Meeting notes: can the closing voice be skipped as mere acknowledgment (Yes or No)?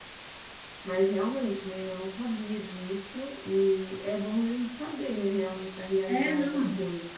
No